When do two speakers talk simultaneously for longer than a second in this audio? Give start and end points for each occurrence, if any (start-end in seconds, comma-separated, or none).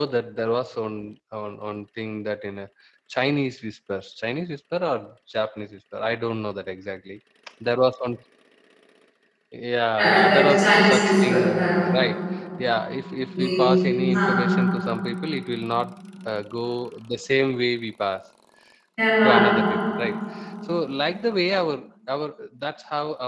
10.0-11.8